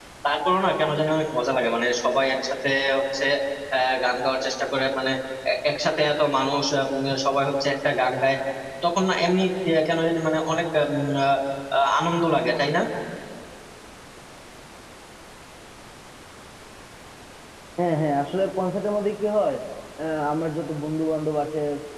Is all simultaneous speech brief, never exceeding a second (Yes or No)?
Yes